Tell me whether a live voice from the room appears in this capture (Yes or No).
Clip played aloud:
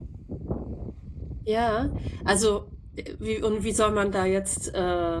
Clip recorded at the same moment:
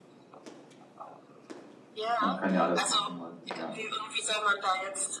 Yes